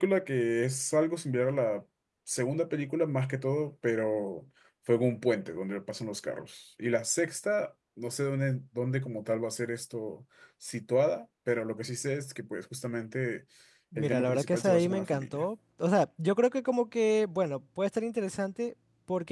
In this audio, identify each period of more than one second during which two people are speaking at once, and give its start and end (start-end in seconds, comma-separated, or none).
14.0-15.4